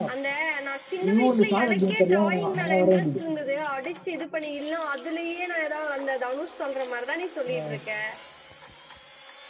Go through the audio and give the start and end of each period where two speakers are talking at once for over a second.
1.0-3.1

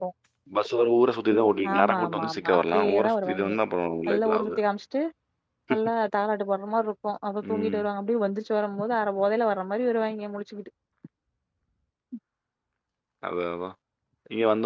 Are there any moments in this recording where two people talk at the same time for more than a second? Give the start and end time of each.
1.7-3.6

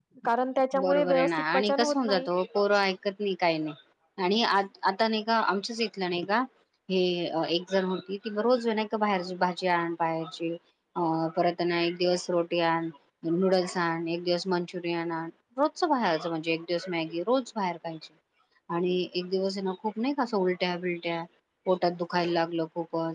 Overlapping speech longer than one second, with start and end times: 0.8-2.3

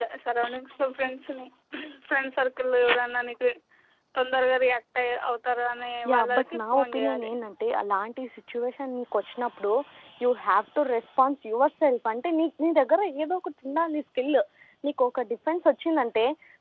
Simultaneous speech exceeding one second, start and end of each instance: 6.1-7.3

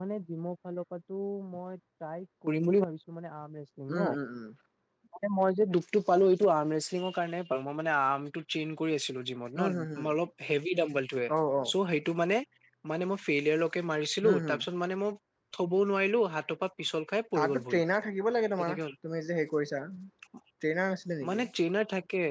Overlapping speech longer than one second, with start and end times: none

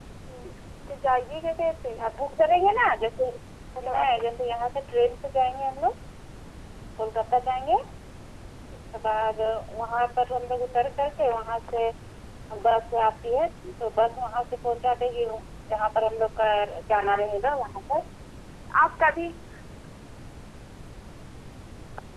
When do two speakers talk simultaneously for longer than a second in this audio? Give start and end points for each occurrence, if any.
none

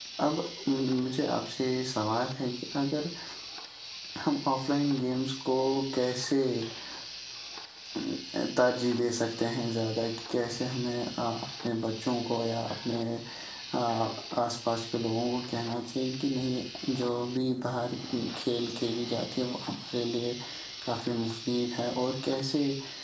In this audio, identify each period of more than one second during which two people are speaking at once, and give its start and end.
none

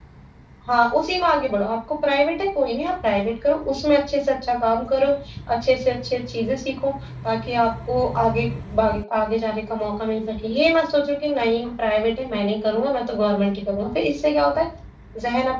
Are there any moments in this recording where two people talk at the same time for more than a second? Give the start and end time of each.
none

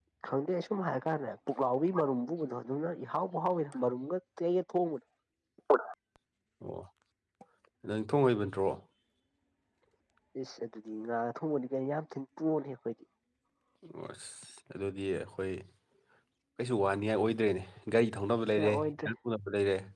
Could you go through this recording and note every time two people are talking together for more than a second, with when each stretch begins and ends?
none

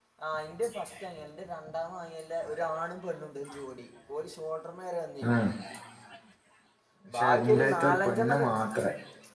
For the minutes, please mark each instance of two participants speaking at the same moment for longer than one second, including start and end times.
7.2-8.5

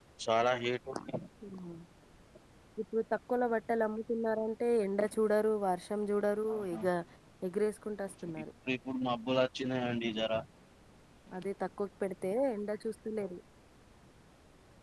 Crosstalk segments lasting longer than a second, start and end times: none

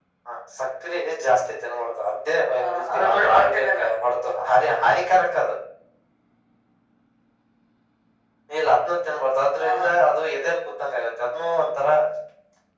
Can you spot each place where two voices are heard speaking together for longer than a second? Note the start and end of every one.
2.6-3.8

